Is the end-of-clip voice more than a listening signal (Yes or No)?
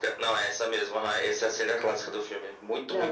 No